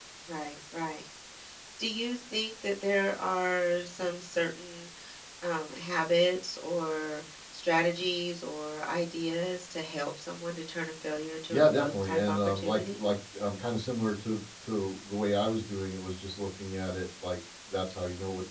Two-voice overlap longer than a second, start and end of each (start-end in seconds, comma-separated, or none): 11.5-13.0